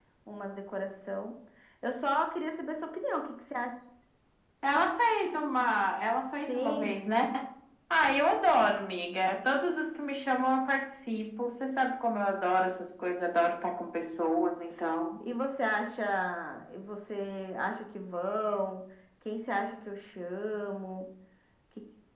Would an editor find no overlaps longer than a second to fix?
Yes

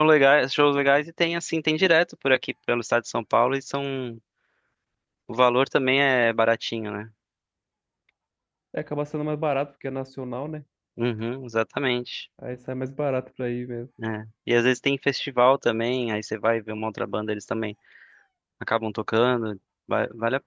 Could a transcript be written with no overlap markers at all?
Yes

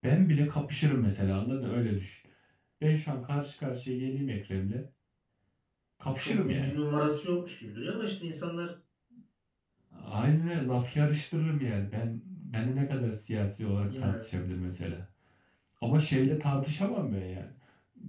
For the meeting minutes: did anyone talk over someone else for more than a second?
No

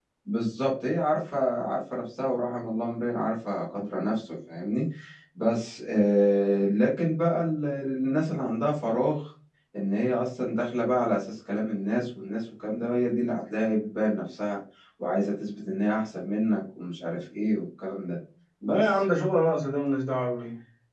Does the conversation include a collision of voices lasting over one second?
No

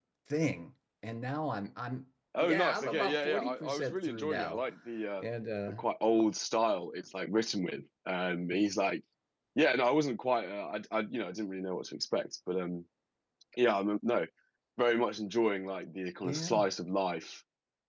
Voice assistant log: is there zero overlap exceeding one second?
No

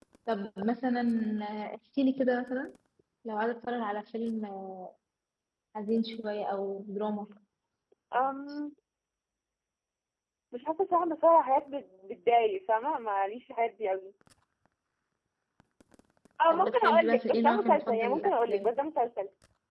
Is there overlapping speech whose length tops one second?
Yes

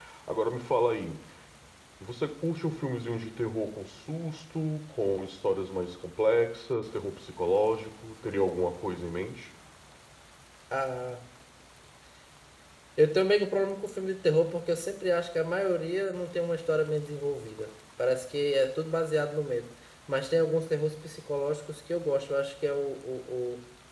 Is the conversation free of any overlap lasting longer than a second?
Yes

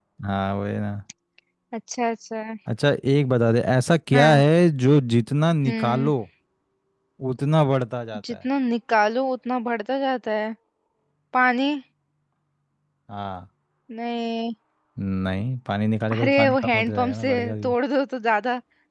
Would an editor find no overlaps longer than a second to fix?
No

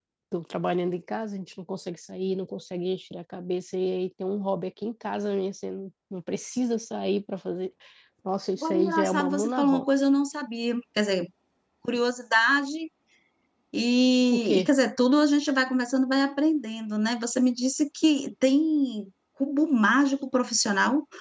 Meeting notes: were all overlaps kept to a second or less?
No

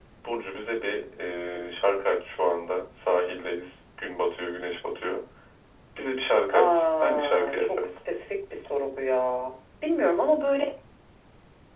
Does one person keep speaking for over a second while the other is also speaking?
Yes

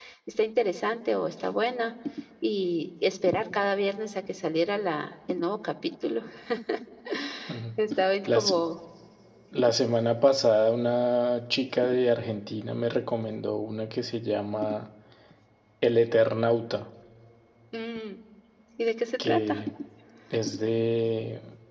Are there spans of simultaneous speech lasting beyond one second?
No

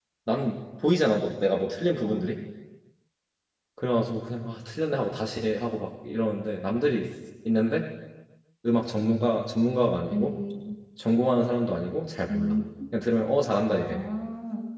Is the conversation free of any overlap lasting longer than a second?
Yes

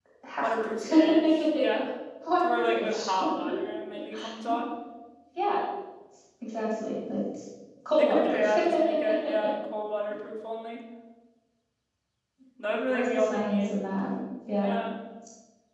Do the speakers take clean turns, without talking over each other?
No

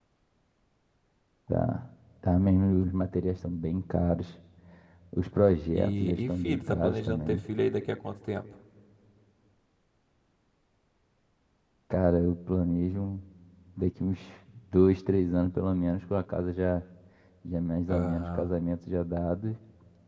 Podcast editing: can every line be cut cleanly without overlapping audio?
No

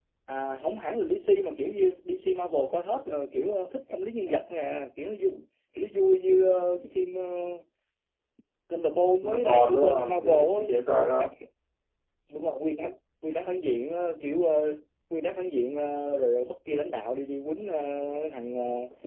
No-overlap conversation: No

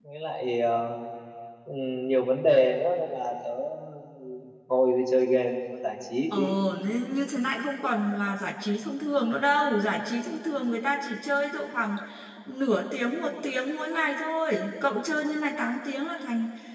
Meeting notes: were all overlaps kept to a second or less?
Yes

